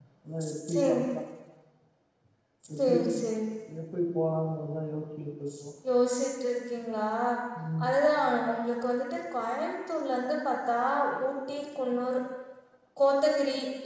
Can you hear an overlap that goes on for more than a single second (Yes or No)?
No